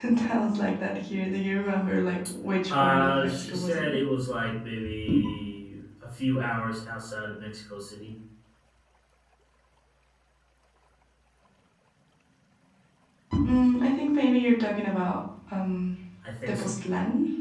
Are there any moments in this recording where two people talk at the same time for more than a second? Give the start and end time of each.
2.7-3.9

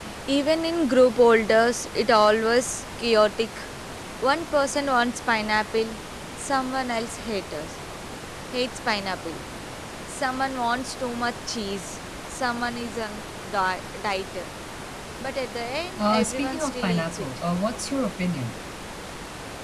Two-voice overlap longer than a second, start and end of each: 16.0-17.3

